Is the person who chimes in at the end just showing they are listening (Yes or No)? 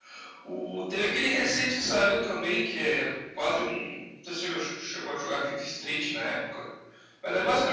No